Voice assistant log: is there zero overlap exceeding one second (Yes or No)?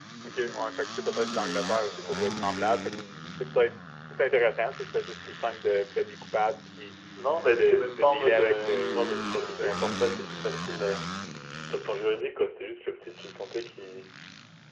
No